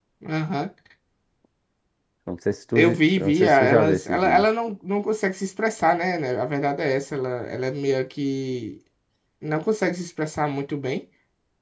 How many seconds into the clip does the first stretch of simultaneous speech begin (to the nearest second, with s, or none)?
3 s